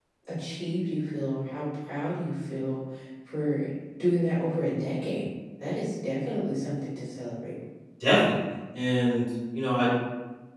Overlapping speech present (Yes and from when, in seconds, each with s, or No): No